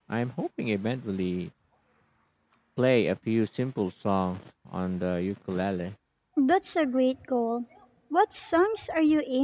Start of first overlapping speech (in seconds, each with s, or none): none